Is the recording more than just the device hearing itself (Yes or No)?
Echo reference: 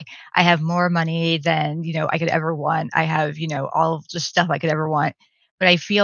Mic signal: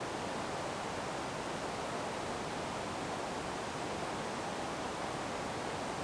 No